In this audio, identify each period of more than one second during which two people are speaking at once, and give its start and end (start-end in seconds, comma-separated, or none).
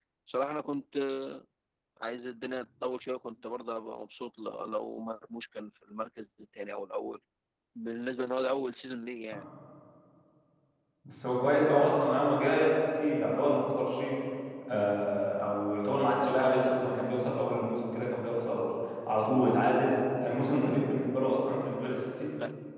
none